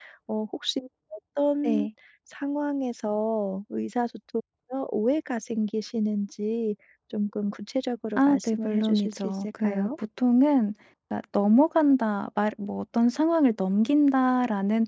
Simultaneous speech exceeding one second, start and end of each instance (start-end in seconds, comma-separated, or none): 8.2-9.9